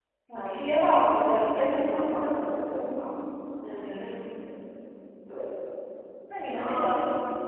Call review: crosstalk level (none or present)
present